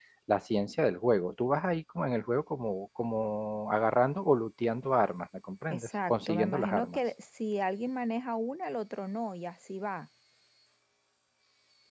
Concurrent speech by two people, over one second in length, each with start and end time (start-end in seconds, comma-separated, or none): 5.7-7.0